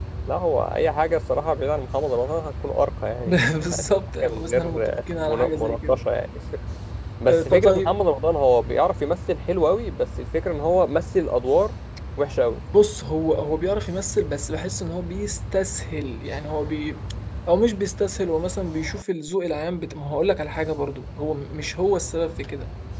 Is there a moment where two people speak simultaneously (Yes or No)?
Yes